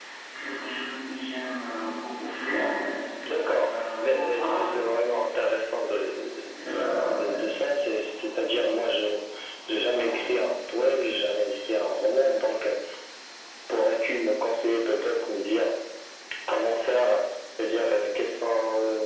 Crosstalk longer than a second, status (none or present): present